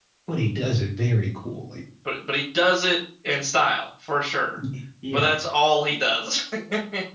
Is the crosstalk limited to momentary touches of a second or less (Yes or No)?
Yes